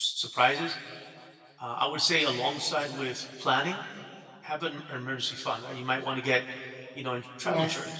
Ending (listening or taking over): listening